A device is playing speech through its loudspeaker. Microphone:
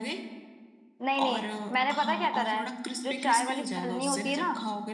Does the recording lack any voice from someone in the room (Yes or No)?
No